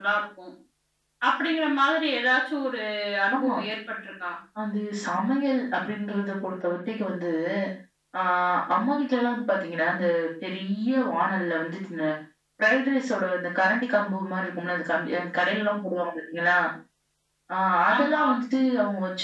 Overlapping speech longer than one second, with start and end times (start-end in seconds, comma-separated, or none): none